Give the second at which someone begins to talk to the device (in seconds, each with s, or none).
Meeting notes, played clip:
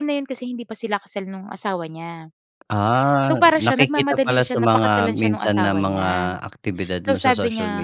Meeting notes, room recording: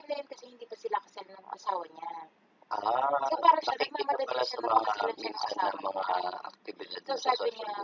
none